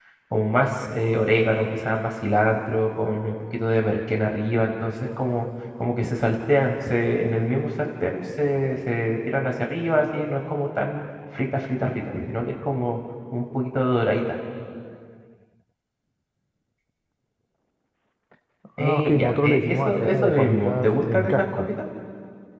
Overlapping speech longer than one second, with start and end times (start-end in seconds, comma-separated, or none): 18.8-21.6